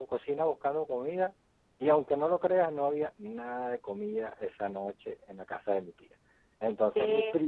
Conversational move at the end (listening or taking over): listening